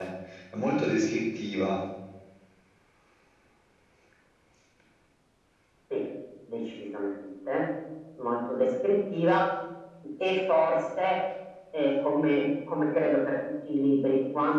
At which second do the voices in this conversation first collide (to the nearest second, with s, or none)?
none